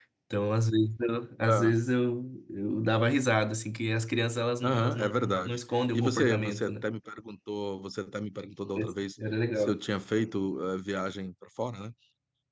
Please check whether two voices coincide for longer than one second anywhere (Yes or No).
Yes